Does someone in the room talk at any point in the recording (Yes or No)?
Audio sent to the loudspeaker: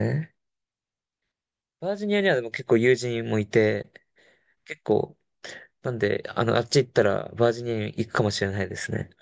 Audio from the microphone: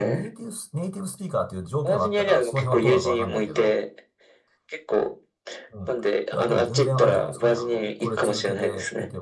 Yes